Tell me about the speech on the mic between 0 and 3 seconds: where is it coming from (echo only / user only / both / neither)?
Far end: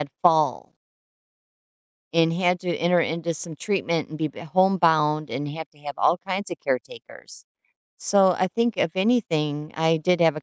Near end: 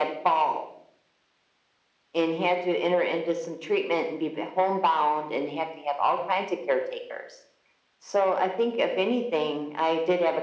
echo only